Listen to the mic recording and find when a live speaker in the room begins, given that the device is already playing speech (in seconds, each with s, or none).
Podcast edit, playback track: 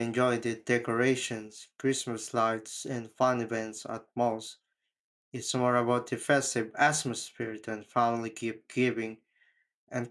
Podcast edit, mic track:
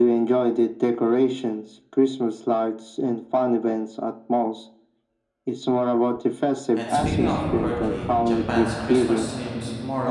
6.7 s